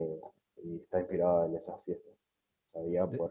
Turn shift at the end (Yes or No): No